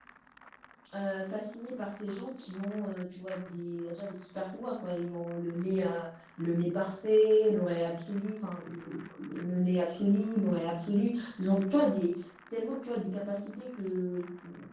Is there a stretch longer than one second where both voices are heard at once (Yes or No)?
No